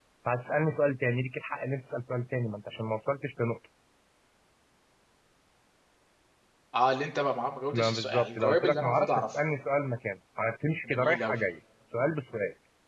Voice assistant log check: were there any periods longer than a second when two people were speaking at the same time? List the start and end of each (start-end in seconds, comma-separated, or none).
7.7-9.4